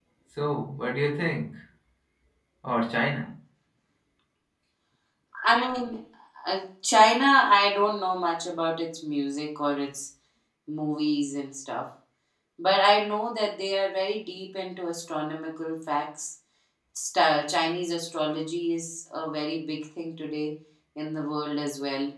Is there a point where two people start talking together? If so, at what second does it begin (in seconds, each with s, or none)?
none